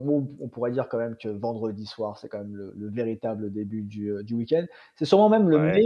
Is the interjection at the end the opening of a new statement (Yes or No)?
No